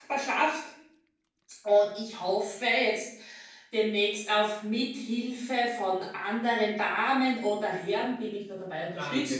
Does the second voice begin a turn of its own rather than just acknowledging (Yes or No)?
Yes